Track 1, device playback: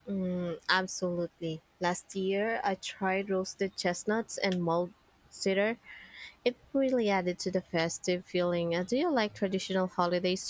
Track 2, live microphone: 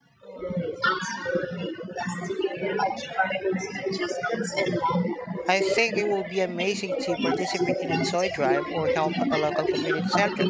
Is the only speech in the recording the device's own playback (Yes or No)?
No